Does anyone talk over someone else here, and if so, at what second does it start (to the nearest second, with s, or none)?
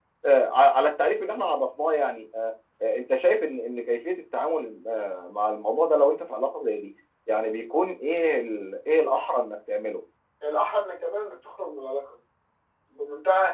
none